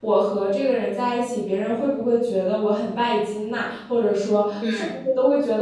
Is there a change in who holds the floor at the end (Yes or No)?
No